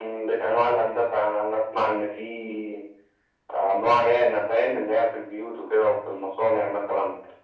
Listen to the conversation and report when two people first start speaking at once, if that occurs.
none

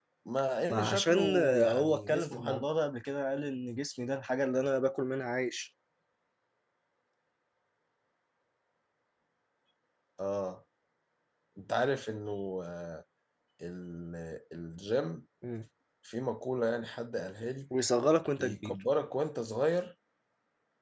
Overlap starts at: 0.7 s

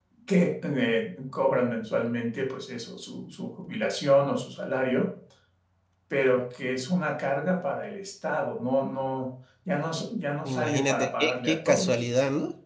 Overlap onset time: 10.4 s

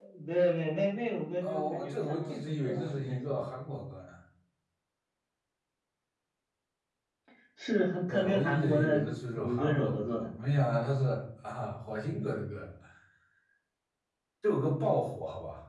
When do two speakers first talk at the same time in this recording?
1.4 s

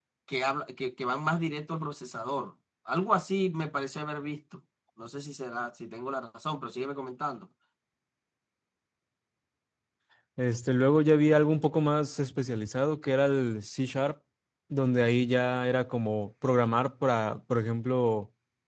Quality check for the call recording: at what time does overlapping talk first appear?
none

